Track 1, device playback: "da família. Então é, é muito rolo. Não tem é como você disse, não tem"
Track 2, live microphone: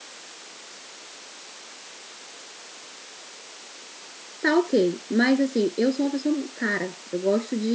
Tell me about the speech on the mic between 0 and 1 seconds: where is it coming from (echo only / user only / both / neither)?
neither